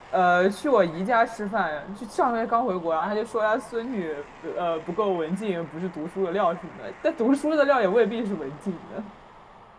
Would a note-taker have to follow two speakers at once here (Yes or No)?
No